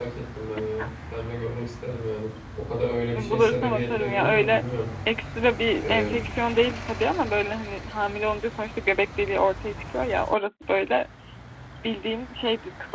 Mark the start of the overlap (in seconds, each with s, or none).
3.1 s